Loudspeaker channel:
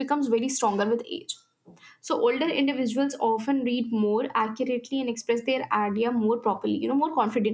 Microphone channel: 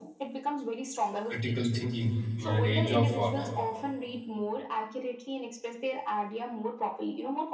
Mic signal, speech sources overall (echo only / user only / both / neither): both